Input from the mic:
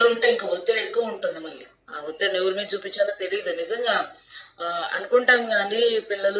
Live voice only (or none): none